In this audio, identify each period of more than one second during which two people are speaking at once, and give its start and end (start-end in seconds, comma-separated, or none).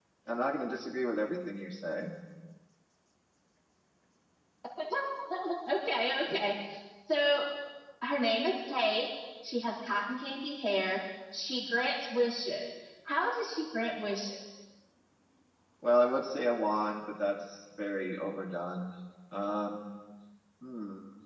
none